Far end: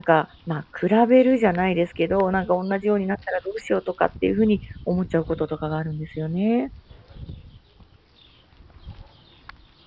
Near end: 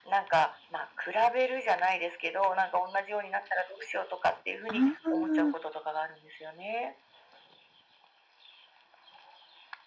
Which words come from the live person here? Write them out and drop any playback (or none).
ああ、